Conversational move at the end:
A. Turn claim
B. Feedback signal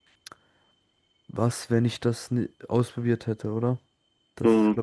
A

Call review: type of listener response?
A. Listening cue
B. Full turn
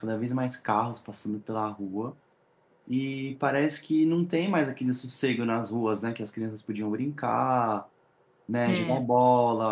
A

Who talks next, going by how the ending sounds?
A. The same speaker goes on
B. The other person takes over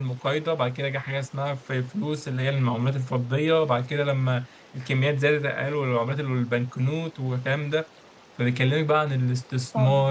B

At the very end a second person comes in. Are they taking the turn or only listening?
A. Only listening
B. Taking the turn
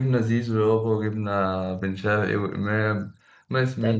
B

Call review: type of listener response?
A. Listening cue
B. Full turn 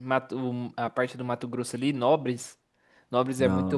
A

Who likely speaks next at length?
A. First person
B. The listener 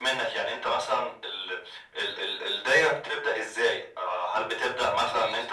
A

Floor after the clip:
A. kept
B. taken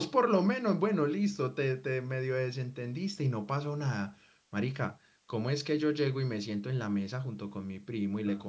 A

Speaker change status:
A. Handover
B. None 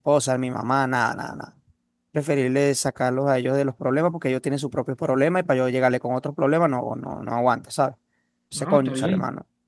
A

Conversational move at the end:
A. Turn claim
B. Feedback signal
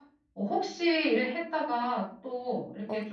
A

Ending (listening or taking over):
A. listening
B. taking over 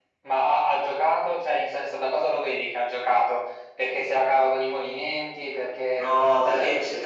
B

